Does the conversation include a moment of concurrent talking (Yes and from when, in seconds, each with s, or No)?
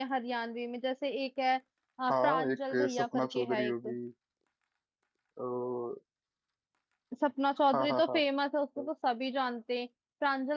Yes, from 2.1 s